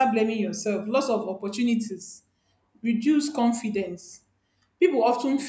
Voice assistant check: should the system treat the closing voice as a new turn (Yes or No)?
No